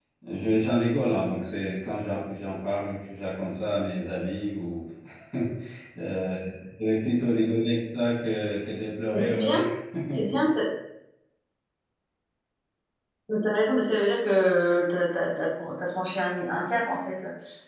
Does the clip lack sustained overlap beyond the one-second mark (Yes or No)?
Yes